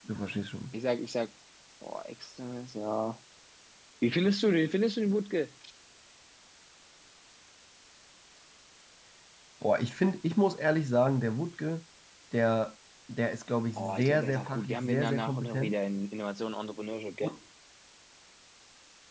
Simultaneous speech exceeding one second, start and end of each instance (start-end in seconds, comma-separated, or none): 13.8-15.8